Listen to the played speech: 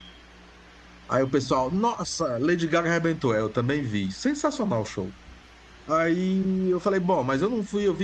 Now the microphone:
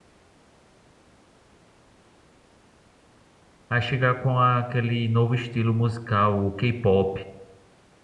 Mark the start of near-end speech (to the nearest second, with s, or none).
4 s